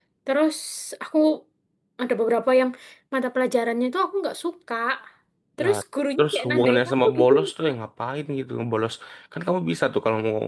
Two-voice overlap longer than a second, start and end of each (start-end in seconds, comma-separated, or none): 6.2-7.8